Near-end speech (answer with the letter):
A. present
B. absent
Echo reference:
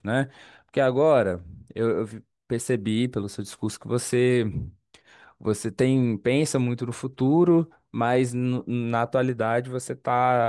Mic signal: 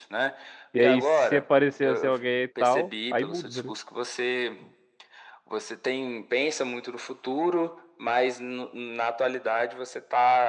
A